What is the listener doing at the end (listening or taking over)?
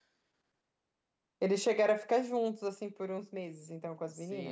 taking over